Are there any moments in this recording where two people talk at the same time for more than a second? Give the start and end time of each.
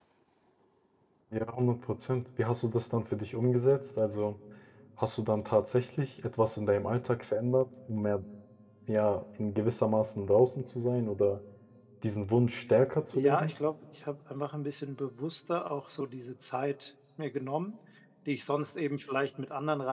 none

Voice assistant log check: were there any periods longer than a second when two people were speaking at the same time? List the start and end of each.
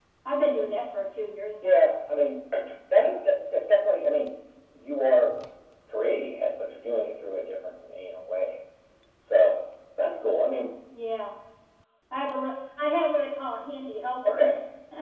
none

